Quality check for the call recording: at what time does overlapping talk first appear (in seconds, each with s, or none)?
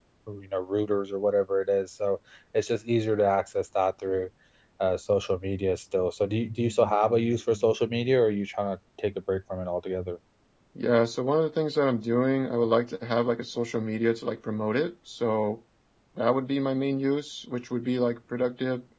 none